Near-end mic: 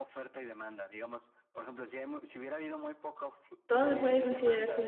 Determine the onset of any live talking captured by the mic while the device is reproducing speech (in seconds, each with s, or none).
3.6 s